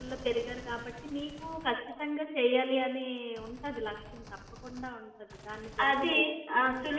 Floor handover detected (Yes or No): Yes